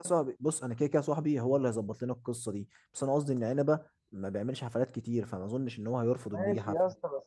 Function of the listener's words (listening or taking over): taking over